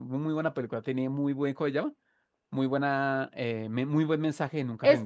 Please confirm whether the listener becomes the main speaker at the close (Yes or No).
Yes